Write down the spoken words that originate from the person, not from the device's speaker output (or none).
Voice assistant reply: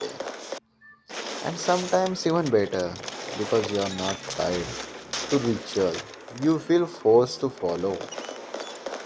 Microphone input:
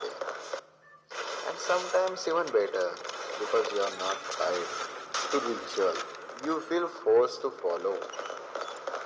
none